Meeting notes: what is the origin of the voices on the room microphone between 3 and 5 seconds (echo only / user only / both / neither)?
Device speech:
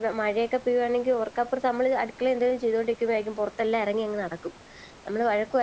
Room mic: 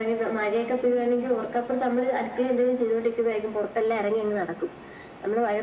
echo only